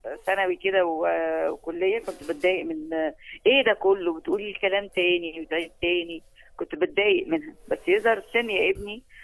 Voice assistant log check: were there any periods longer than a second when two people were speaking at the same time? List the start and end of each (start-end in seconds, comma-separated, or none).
none